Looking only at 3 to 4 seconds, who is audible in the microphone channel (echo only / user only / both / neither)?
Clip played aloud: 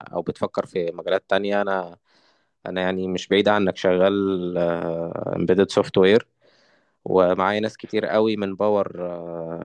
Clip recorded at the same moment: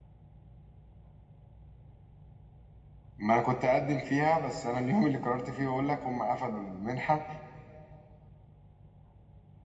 user only